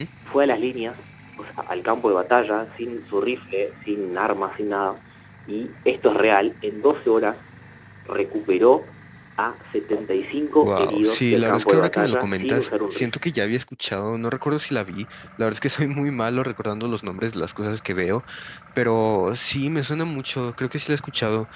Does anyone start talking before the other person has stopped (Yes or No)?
Yes